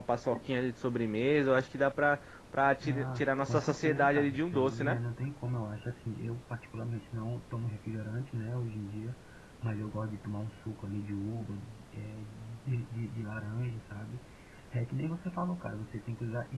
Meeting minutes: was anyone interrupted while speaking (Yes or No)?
Yes